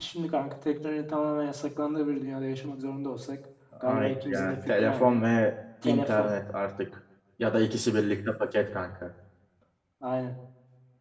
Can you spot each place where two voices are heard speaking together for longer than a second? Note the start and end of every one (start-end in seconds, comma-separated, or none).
4.0-5.2